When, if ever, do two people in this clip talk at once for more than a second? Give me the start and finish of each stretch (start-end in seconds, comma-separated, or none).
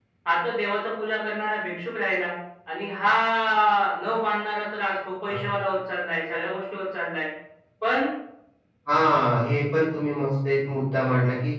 none